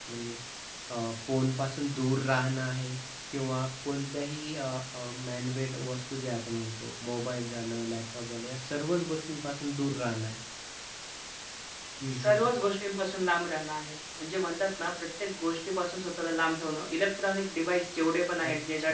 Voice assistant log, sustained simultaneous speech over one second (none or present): none